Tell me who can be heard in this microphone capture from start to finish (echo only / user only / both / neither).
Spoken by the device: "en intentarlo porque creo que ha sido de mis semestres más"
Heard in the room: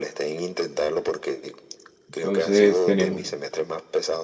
both